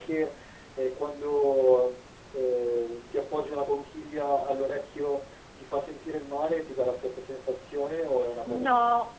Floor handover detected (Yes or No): Yes